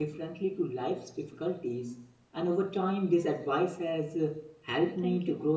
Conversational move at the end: listening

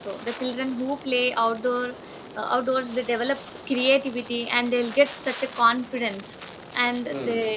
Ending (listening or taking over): listening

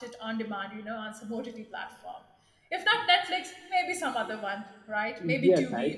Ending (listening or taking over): taking over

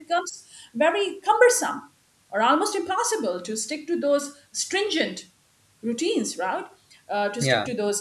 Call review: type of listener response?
listening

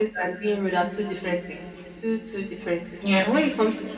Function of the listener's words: listening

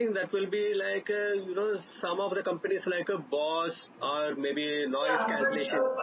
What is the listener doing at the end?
taking over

